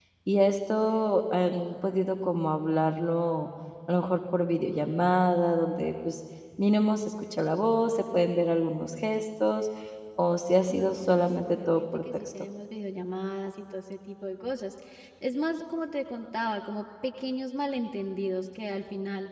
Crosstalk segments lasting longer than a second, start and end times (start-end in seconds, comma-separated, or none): 10.7-12.3